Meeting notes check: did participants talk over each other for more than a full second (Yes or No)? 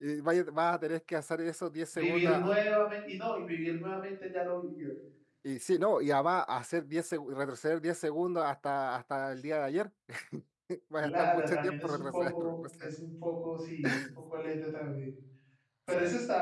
Yes